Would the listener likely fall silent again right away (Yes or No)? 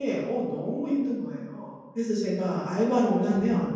Yes